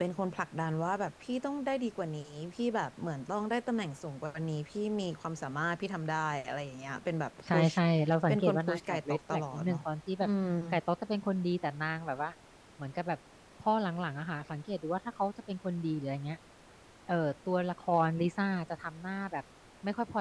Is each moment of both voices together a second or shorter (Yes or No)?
No